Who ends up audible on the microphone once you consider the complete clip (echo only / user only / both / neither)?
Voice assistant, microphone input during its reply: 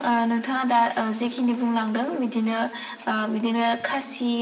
echo only